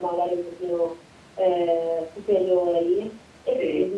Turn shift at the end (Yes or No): No